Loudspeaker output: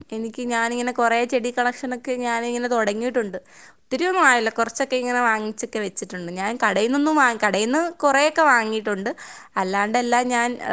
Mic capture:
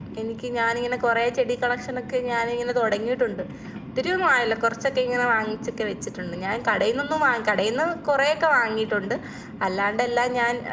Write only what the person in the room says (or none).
none